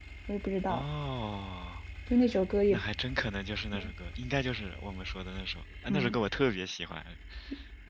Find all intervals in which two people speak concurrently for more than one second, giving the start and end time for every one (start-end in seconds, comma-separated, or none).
none